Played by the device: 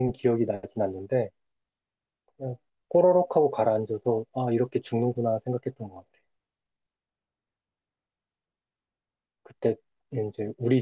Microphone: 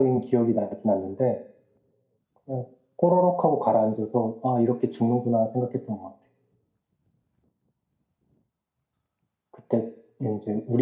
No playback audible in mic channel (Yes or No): No